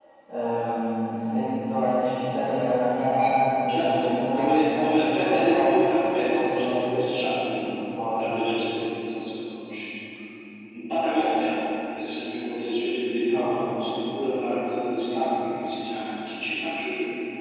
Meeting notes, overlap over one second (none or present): present